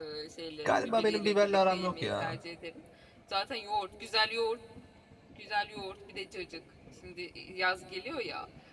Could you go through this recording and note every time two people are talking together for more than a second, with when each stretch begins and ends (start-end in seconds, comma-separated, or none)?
0.7-2.4